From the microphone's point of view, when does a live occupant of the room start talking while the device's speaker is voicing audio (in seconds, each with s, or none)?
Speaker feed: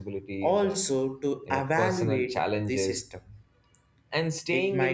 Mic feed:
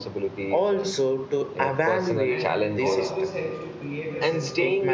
2.2 s